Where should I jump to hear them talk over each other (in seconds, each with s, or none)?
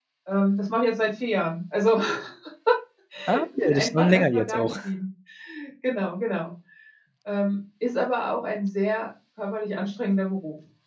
3.3 s